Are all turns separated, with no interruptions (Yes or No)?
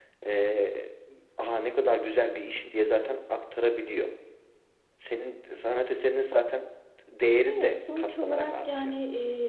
No